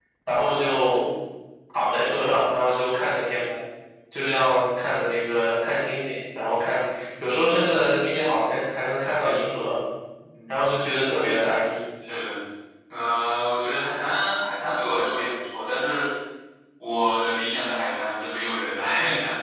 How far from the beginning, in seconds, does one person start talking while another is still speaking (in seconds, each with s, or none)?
none